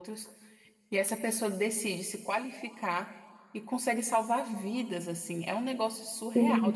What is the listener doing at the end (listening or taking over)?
listening